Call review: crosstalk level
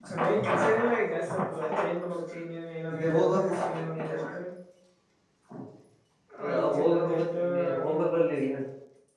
present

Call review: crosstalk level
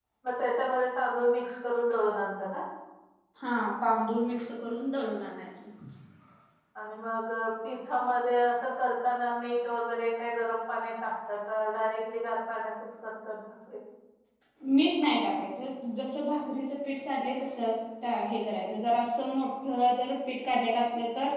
none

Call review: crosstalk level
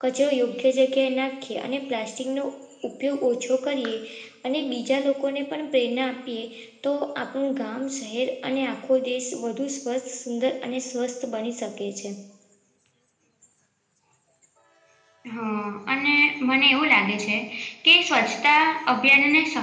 none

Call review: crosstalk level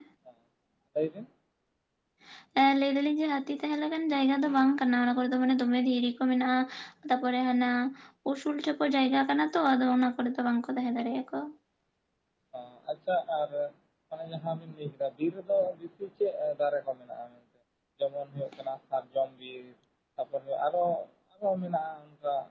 none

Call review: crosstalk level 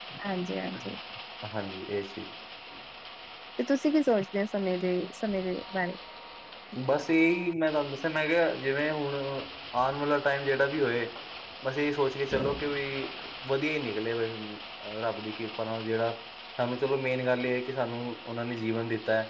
none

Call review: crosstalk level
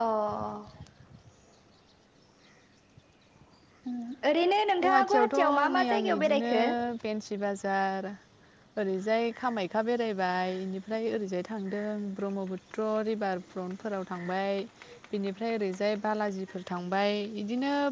present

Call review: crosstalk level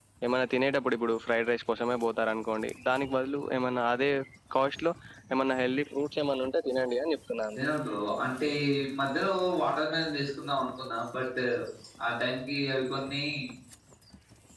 none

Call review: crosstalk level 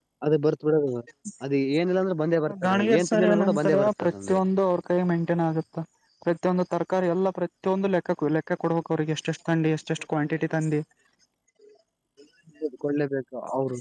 present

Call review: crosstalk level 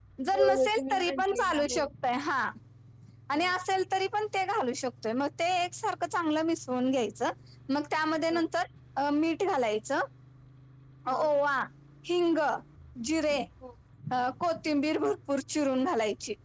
present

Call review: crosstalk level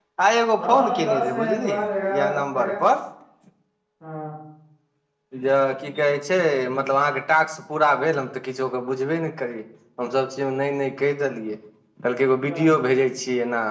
present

